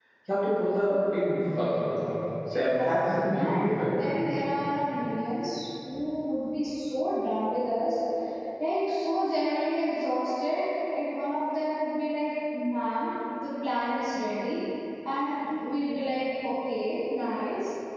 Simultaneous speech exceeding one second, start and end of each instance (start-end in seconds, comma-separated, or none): 2.5-4.1